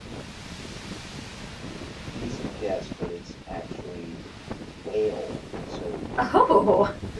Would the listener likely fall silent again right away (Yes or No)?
Yes